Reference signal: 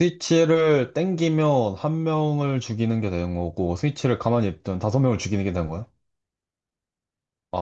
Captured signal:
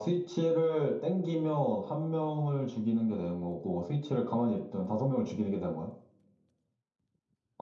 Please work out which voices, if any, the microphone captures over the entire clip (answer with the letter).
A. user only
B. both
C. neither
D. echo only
D